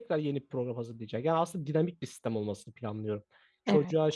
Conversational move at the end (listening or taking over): listening